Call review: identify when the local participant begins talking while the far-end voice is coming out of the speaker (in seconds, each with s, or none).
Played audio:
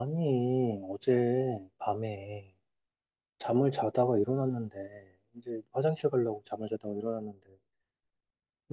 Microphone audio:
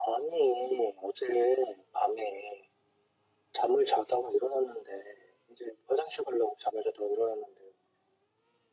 none